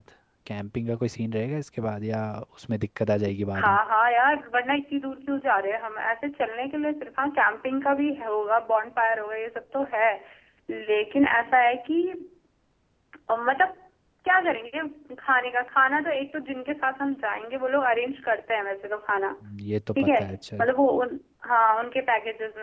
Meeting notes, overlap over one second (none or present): none